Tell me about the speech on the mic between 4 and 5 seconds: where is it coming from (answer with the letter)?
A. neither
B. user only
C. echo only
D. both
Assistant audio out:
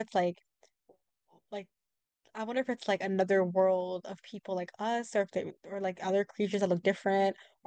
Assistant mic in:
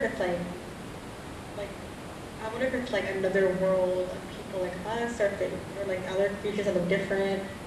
C